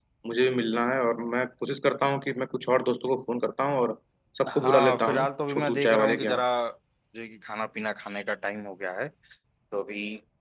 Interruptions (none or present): present